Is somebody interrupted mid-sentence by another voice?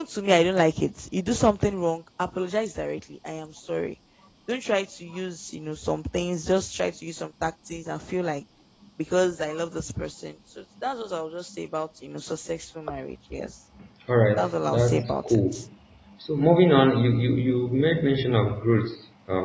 Yes, from 14.4 s

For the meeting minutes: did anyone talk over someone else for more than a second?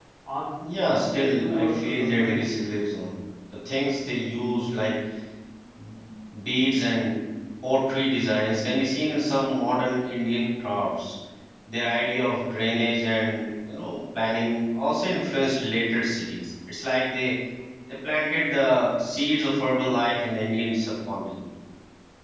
Yes, from 0.7 s

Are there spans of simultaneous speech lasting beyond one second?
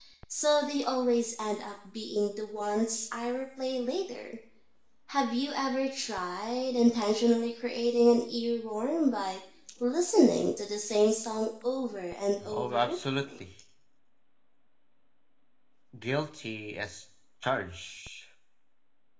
No

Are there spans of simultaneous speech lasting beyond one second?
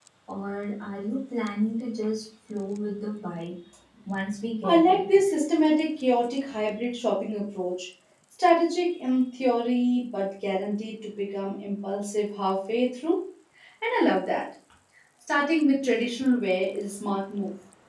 No

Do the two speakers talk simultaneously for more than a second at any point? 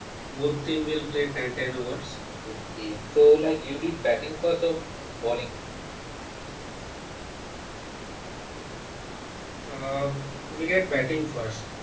No

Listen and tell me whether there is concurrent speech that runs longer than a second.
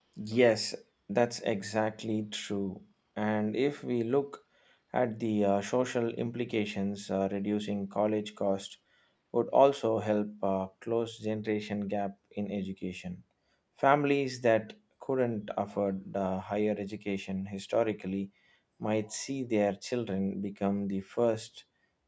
No

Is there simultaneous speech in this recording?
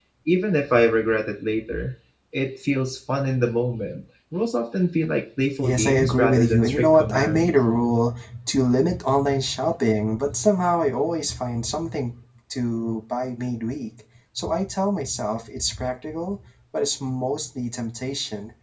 Yes, from 5.6 s

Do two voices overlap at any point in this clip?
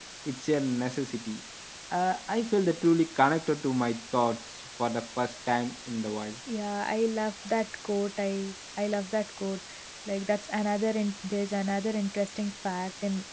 No

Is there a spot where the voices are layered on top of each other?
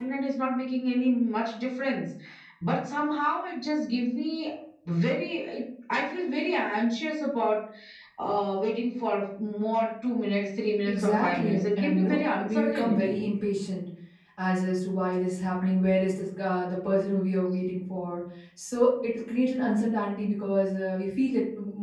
Yes, from 10.8 s

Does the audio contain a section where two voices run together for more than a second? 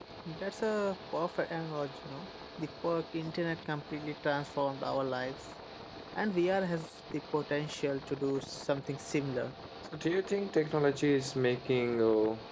No

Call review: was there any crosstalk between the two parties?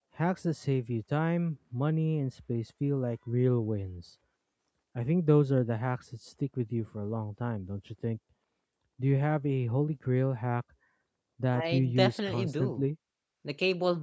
Yes, from 11.6 s

